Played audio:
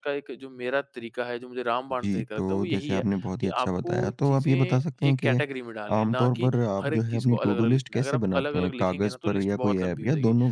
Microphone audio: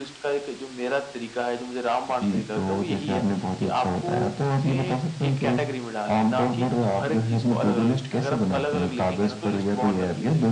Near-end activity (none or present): none